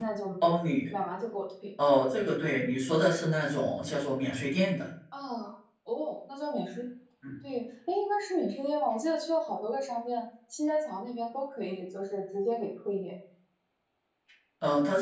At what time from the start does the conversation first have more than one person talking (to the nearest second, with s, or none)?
none